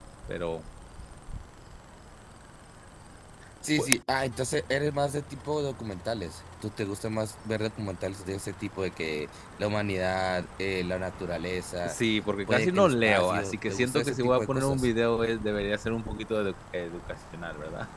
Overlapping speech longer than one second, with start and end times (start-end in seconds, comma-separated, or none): 12.5-14.9